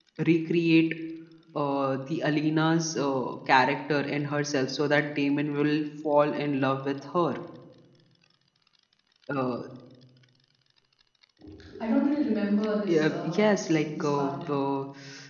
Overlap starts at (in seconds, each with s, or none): 12.9 s